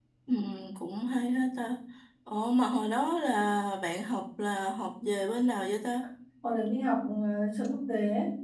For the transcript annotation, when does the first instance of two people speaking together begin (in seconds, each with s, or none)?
none